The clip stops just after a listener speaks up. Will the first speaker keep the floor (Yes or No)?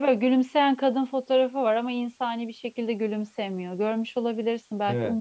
No